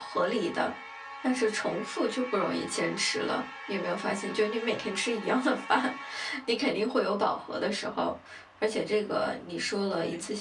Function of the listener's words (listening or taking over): listening